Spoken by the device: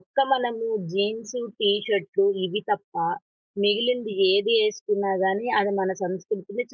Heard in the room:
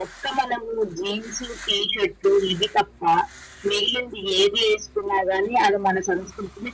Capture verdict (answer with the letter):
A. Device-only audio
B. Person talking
A